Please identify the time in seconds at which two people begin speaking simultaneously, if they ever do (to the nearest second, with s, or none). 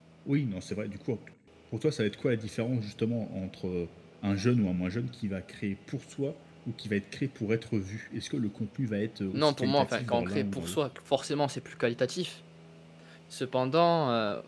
9 s